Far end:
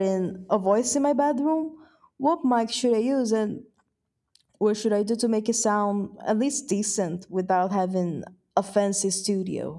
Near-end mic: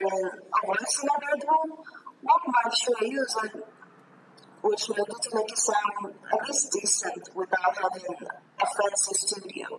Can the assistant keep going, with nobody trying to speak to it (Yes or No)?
Yes